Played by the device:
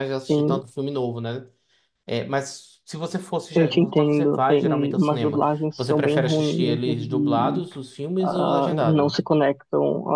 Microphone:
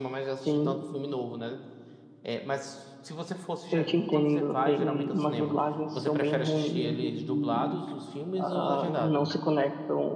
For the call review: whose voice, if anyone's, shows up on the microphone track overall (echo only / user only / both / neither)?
echo only